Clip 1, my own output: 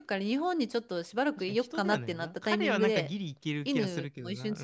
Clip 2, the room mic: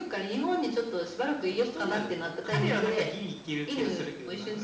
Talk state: both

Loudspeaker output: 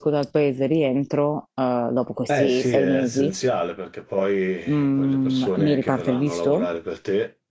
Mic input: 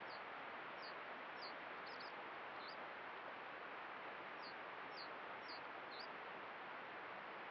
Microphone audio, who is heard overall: neither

